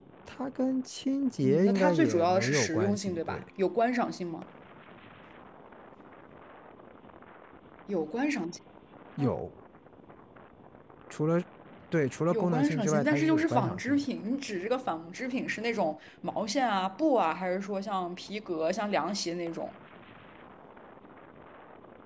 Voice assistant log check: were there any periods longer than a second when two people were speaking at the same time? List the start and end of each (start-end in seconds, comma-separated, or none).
1.4-3.4, 12.3-14.1